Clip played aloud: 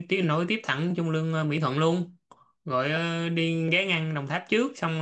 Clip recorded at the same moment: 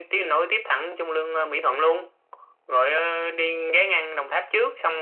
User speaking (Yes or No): No